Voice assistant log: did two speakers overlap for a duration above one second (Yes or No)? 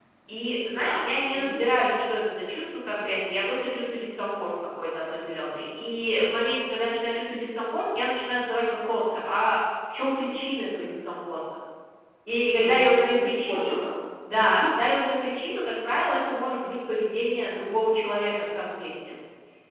Yes